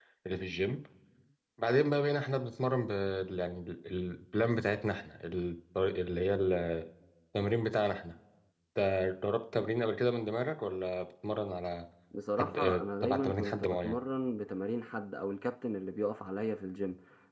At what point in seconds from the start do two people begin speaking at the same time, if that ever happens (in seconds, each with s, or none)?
12.4 s